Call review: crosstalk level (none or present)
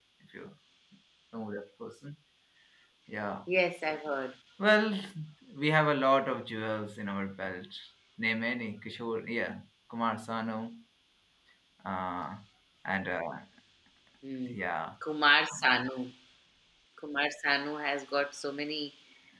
none